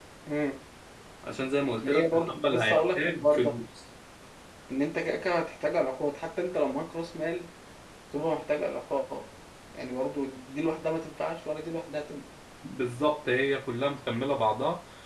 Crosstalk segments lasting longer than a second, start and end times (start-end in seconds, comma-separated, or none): 1.9-3.5